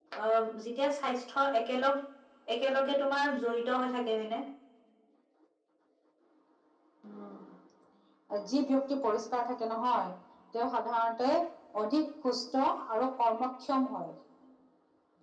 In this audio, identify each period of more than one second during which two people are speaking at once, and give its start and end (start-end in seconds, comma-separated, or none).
none